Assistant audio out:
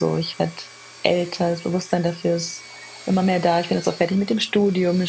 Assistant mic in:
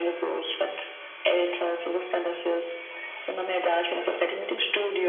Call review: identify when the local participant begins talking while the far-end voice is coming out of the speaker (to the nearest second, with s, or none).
none